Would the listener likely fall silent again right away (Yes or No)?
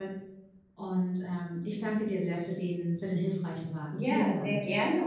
No